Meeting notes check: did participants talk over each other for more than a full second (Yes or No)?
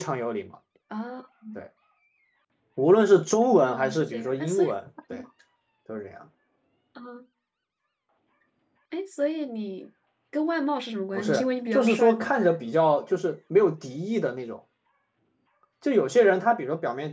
Yes